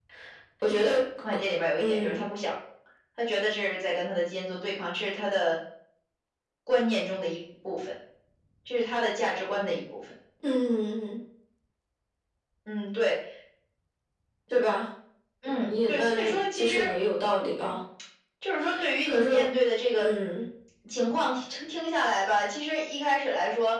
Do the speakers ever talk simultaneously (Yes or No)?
Yes